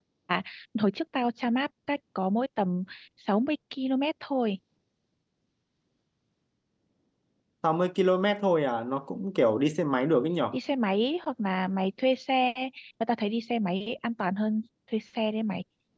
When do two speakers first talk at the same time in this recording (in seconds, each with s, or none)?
none